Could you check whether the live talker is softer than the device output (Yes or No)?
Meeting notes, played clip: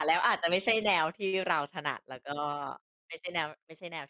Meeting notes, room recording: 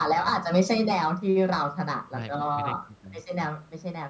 Yes